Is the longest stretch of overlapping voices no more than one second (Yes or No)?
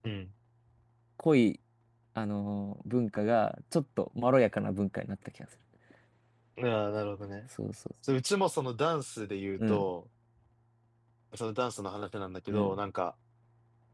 Yes